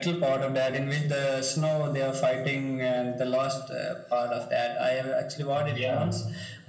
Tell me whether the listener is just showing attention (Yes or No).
Yes